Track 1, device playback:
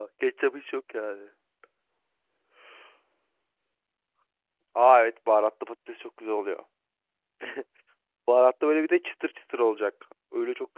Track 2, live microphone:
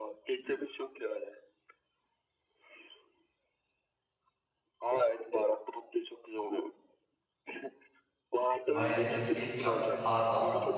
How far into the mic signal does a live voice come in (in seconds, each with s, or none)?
8.7 s